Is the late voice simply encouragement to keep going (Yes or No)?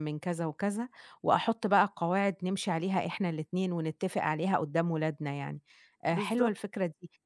Yes